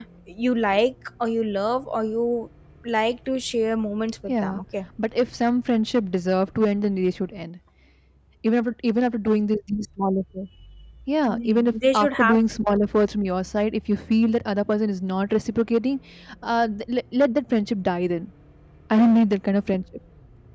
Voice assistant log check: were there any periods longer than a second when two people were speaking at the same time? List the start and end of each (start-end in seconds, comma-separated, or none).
11.2-12.7